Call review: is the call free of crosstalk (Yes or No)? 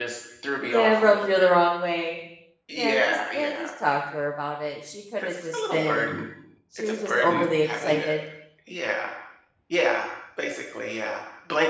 No